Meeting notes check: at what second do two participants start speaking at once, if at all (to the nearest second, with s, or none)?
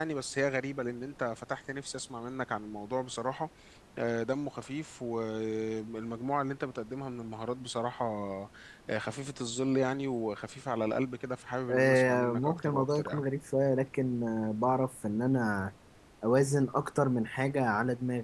12 s